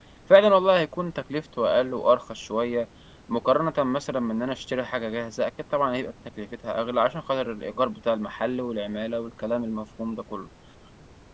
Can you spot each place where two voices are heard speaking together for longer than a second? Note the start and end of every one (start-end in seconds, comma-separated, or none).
none